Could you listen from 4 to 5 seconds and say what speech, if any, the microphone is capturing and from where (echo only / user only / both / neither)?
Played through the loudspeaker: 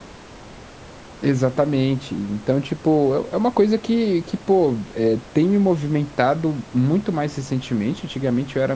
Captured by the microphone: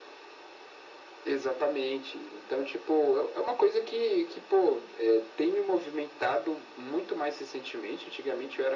echo only